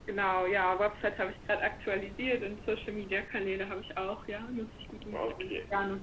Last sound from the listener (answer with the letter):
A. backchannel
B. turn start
B